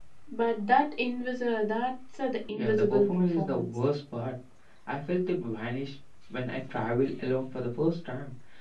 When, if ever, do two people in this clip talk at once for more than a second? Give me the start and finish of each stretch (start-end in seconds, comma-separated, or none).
2.5-3.8